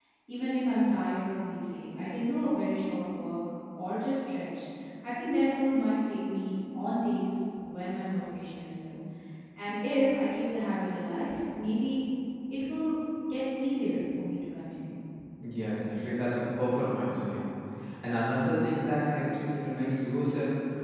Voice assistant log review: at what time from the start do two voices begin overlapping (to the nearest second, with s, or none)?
none